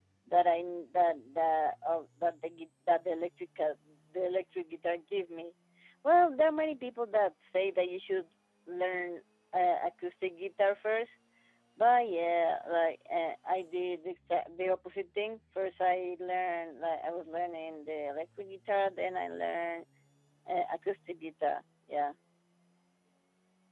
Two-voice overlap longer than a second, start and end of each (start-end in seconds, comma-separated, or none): none